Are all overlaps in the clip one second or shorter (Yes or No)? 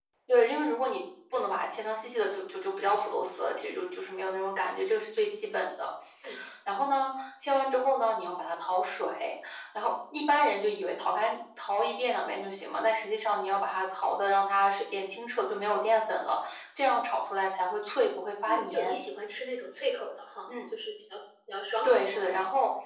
Yes